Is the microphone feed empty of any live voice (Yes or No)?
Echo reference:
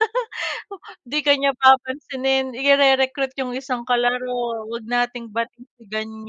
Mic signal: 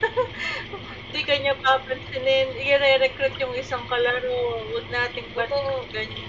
No